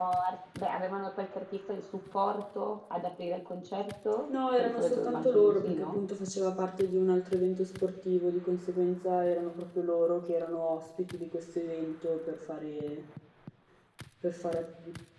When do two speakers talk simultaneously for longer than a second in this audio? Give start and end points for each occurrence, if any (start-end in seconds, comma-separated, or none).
4.5-6.0